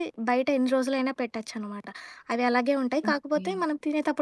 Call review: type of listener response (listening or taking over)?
listening